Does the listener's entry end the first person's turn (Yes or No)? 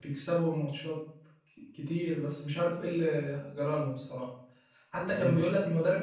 No